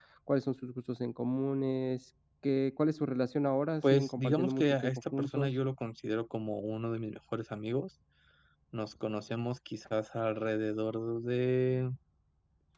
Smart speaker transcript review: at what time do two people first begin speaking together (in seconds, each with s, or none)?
3.8 s